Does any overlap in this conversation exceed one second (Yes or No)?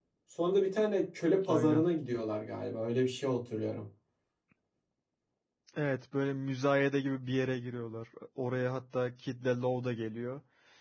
No